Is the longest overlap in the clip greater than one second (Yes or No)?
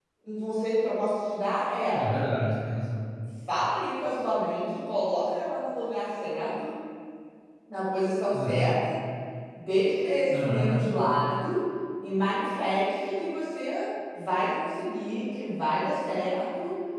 No